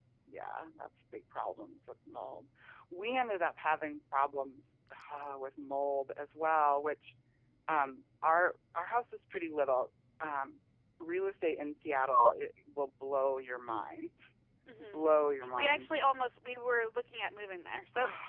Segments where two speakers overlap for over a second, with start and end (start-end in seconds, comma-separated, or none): none